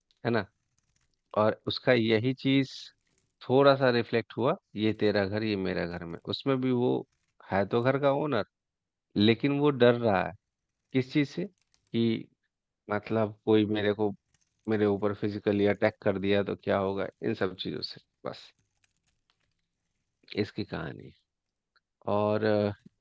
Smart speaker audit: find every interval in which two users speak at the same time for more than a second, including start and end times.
none

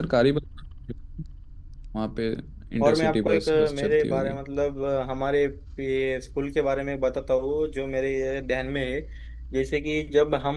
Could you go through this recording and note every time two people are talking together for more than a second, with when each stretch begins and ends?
2.8-4.4

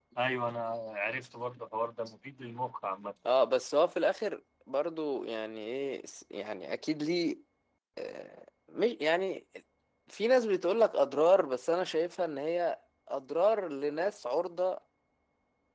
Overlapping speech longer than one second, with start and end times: none

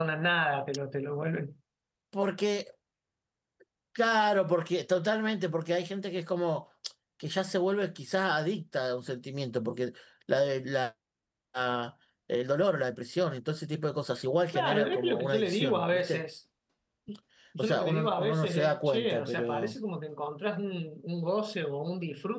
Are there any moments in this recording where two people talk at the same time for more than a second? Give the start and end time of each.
14.5-16.2, 17.6-19.7

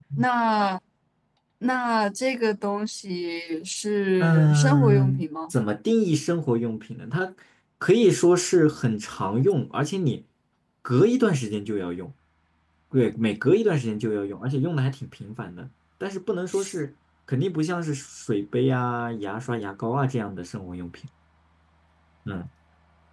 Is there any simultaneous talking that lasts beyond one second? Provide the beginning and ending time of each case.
4.2-5.5

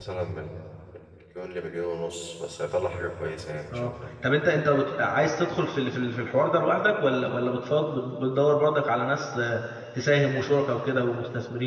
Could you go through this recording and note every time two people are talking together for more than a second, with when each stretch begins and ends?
none

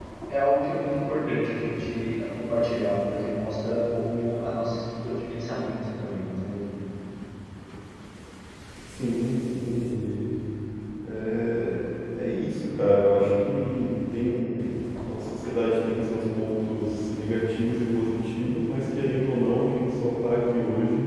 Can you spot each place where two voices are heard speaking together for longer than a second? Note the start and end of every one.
none

